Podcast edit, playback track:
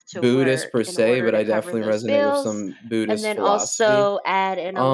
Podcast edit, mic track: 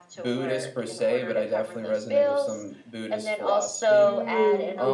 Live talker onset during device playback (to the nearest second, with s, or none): 4 s